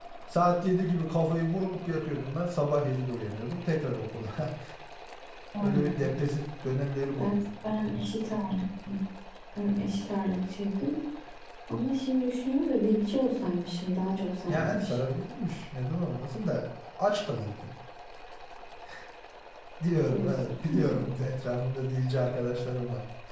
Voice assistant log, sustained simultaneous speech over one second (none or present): none